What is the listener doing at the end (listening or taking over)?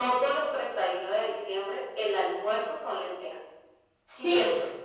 listening